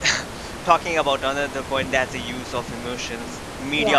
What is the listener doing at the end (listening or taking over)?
listening